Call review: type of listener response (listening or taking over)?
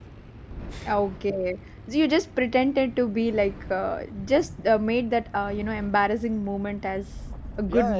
taking over